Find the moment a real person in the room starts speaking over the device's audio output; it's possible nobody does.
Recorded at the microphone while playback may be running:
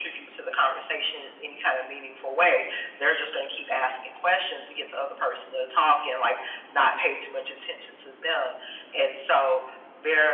none

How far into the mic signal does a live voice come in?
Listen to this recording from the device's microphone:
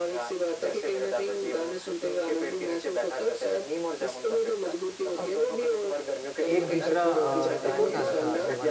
6 s

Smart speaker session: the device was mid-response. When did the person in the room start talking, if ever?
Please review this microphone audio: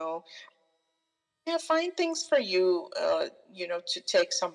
none

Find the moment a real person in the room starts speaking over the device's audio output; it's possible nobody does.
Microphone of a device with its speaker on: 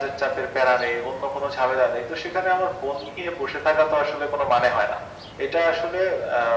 none

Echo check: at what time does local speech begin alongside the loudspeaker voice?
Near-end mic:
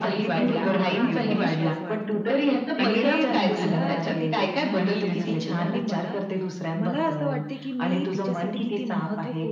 0 s

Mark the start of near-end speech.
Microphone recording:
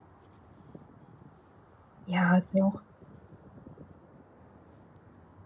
2 s

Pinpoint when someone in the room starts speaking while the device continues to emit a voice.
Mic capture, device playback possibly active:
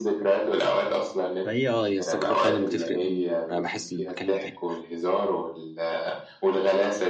1 s

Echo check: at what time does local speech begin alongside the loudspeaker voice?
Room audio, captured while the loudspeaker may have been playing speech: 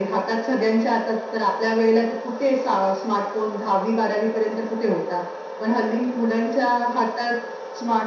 none

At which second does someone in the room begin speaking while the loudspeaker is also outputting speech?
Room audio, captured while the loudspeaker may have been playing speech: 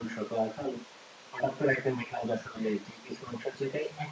none

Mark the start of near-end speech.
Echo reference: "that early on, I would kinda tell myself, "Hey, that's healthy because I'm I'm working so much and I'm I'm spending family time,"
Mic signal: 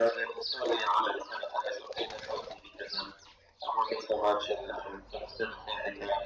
none

